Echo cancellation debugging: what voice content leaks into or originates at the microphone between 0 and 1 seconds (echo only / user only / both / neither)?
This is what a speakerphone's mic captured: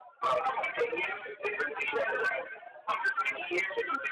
echo only